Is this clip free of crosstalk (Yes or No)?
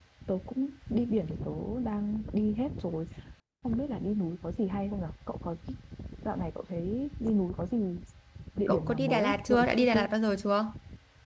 No